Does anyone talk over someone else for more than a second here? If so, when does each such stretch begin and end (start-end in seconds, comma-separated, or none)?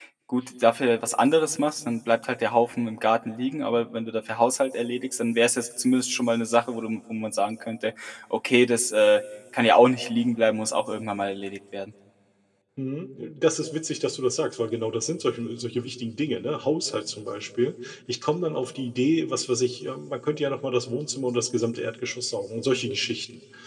none